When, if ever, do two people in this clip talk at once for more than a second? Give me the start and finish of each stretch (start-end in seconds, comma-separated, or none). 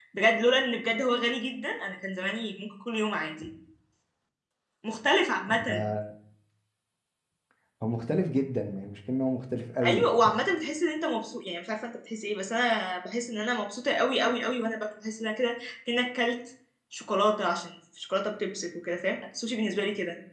none